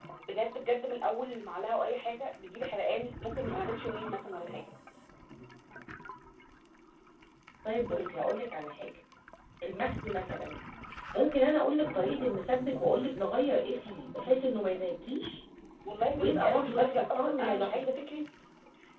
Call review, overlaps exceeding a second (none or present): present